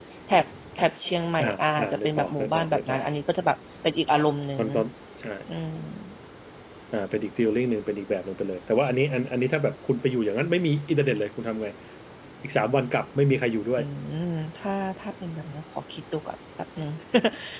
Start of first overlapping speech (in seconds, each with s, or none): 1.4 s